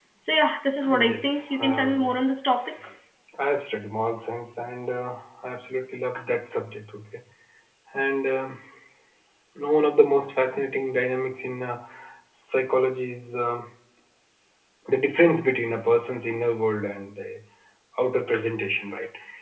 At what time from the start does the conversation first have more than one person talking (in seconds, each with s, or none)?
0.9 s